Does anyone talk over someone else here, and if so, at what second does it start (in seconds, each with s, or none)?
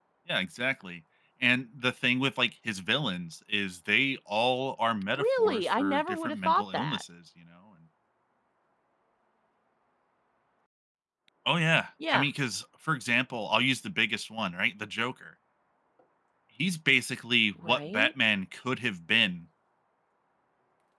5.1 s